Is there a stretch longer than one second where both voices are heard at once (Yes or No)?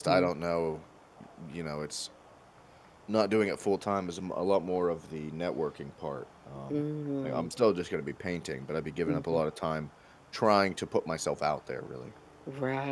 No